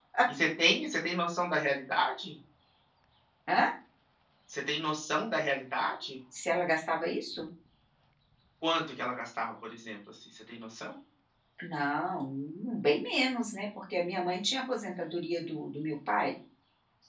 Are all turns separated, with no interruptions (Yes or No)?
Yes